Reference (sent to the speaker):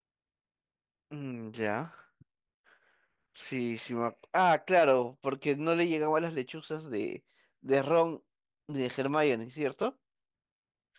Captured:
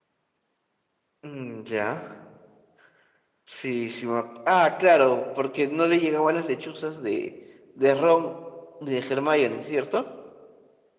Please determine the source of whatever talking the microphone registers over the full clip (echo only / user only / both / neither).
echo only